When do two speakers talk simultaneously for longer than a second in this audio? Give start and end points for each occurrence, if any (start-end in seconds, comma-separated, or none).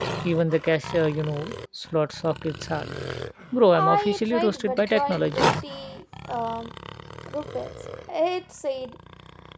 3.7-5.5